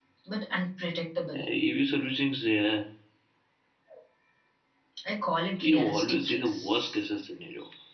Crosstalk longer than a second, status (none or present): present